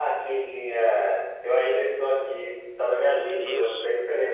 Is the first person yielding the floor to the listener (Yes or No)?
No